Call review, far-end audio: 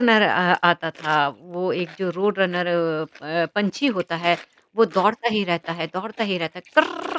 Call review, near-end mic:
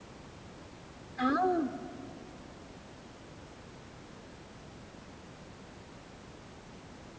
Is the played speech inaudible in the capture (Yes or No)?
Yes